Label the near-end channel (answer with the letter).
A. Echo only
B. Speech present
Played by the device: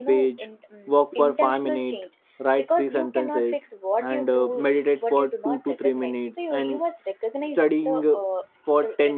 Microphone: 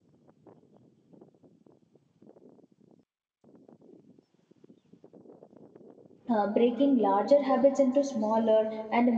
B